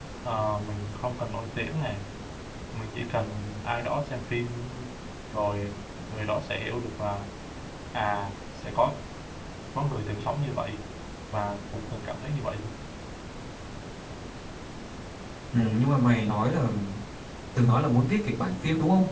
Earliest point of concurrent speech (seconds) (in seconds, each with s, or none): none